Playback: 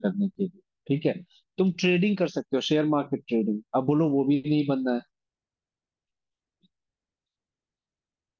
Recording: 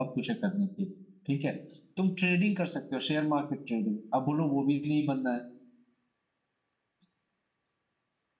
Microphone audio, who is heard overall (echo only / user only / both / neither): echo only